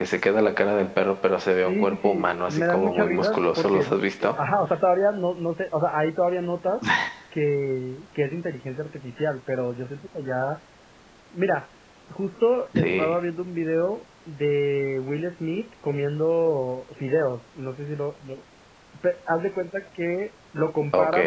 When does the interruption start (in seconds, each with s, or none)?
1.6 s